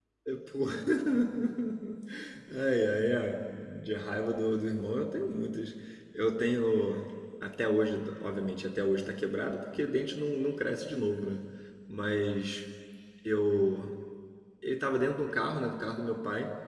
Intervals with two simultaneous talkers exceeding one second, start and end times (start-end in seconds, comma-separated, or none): none